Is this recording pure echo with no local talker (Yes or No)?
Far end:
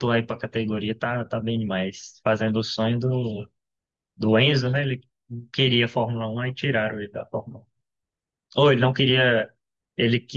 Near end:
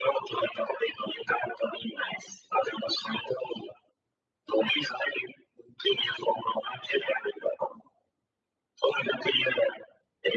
Yes